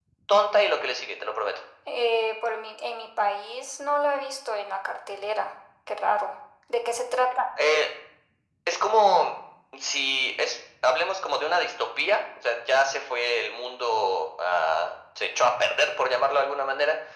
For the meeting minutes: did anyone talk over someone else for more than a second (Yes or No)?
No